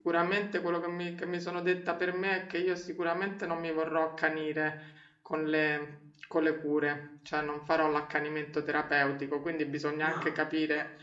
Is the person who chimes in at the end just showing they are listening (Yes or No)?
Yes